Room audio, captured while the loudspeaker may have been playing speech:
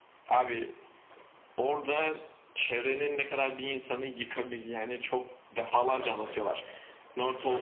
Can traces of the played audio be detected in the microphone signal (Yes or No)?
Yes